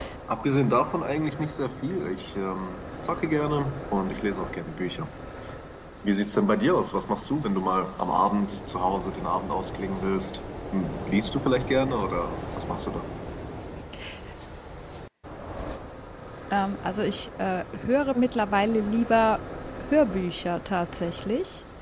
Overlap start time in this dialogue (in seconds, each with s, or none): none